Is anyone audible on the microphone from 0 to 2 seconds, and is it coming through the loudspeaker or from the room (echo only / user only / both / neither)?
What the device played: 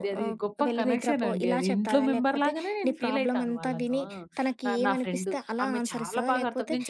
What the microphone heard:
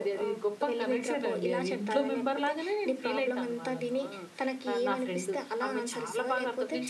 echo only